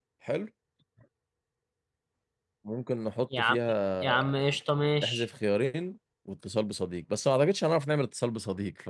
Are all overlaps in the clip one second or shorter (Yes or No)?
Yes